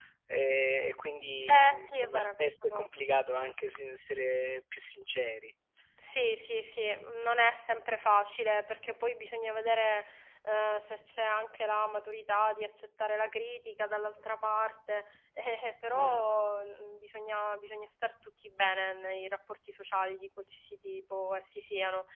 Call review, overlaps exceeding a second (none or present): present